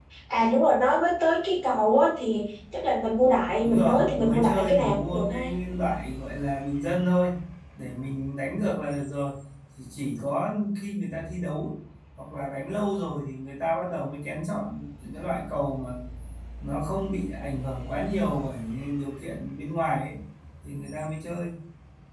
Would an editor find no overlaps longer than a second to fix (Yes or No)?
No